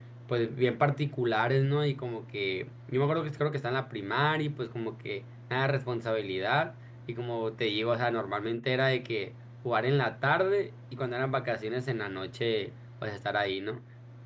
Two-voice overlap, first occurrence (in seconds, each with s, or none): none